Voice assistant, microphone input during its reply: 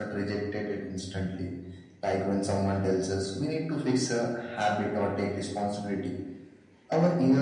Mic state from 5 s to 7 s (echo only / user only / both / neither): echo only